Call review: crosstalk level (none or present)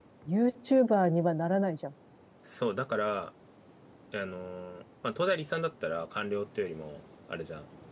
none